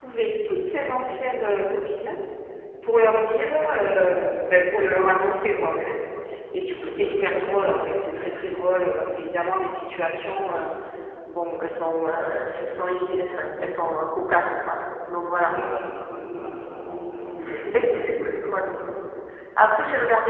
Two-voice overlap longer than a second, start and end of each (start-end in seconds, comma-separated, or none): 17.4-18.7